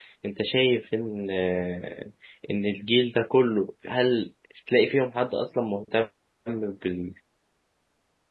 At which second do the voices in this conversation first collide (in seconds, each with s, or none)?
none